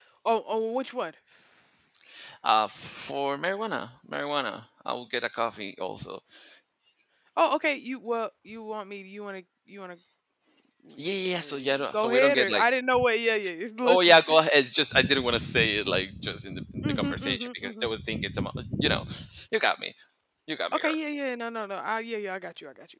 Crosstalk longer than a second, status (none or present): present